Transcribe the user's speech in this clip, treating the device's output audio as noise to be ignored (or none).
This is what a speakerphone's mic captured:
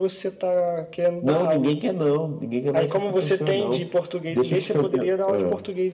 none